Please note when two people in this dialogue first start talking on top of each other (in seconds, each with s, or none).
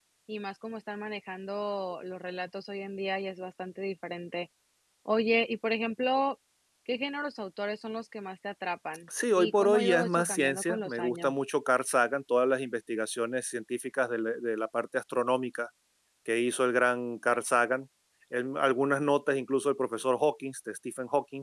9.3 s